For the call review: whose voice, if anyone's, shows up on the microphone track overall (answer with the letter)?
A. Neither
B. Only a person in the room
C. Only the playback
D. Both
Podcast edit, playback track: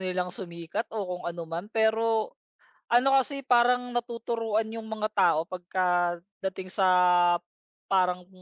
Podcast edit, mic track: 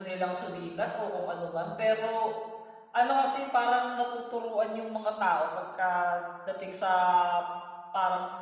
C